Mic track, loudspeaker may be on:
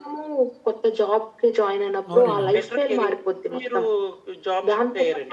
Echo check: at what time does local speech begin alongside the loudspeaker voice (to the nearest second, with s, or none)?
2 s